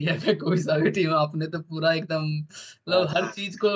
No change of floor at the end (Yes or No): Yes